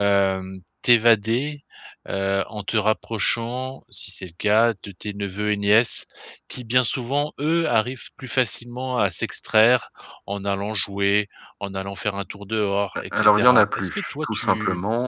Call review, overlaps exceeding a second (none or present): present